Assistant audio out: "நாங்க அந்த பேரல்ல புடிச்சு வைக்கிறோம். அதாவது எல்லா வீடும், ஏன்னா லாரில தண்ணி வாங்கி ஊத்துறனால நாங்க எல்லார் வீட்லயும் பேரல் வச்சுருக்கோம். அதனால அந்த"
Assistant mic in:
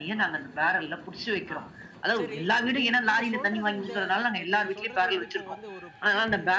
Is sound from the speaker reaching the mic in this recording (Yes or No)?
Yes